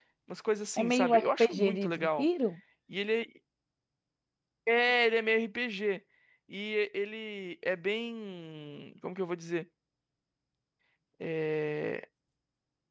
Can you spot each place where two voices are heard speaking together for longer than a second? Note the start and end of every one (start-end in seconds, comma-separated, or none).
0.8-2.3